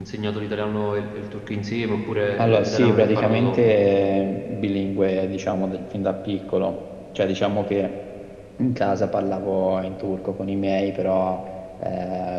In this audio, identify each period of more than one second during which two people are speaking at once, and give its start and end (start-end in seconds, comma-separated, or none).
2.4-3.6